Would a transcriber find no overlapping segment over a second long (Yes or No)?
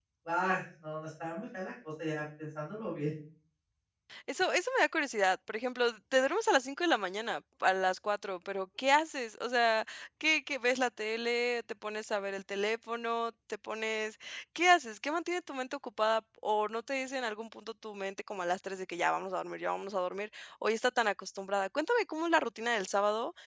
Yes